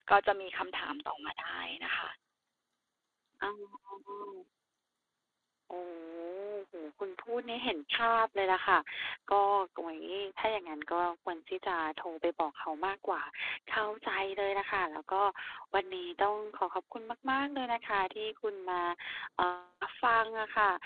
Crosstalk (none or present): none